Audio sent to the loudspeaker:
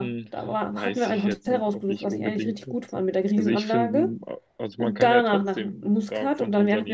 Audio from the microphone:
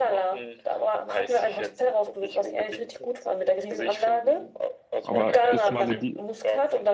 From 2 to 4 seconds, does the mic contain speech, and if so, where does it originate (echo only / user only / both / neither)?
echo only